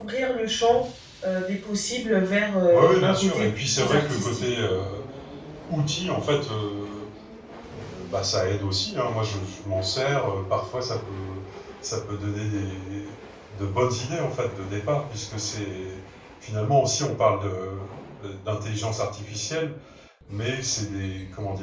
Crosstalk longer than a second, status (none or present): present